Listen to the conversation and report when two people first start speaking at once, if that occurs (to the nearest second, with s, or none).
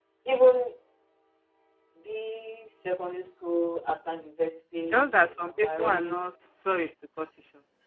5 s